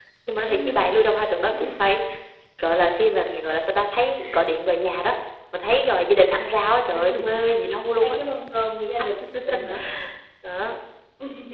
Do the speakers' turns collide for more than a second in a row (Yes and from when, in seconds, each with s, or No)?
No